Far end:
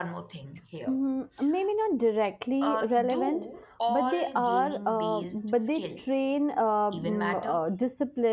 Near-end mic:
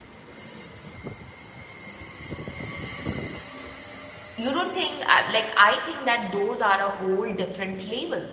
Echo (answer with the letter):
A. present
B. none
B